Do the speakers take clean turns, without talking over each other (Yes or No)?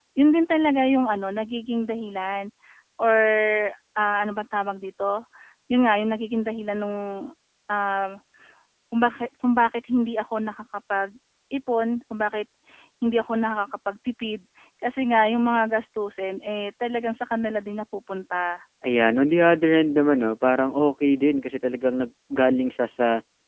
Yes